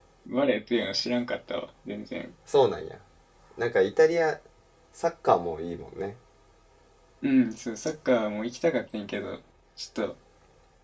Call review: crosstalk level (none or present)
none